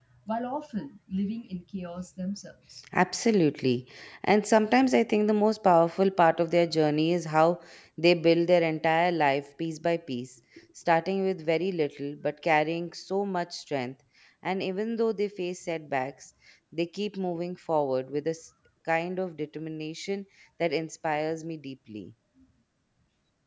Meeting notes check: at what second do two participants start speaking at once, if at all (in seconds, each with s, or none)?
none